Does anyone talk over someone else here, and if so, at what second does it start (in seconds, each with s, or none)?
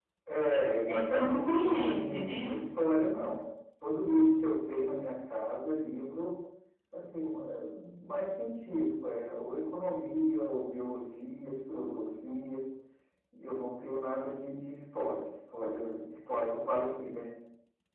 0.9 s